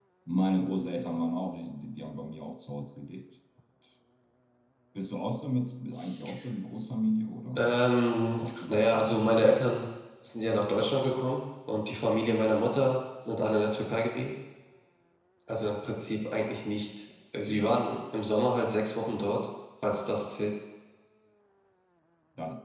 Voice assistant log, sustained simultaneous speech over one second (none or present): present